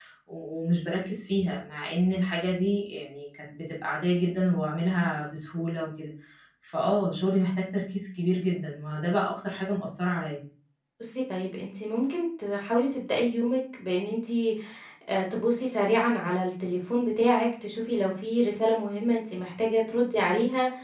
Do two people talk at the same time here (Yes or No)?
No